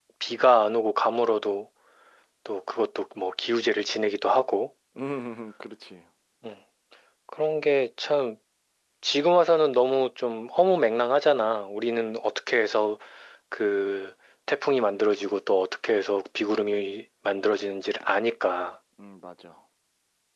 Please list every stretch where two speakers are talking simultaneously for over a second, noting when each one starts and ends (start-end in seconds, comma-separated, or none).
none